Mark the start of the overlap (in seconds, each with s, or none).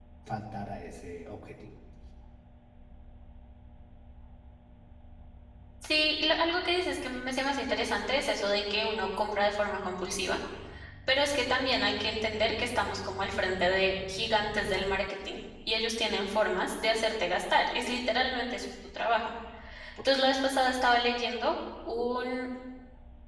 none